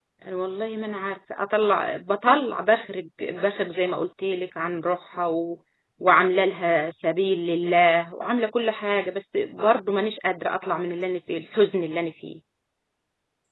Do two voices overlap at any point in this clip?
No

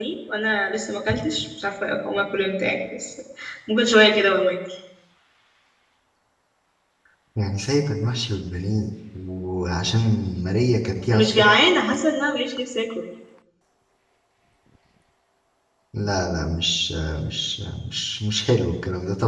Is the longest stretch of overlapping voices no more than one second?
Yes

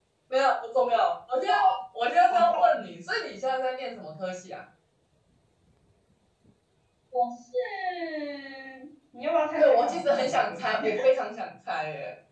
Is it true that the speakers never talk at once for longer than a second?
No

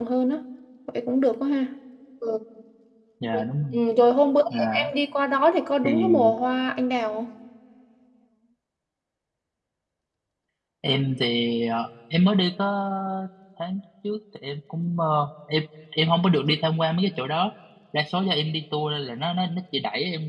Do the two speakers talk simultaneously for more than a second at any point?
No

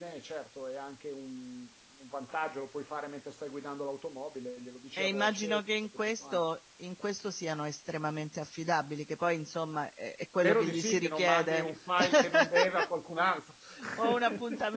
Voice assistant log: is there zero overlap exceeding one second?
No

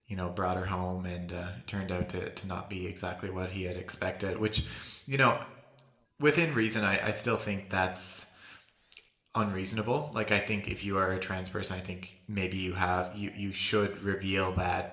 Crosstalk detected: No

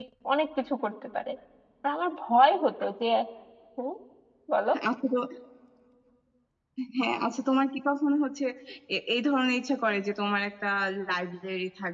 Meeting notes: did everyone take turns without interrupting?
Yes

